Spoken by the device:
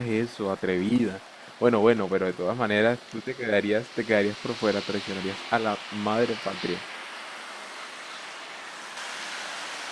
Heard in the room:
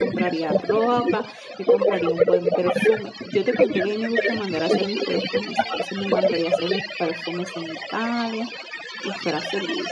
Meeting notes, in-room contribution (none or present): present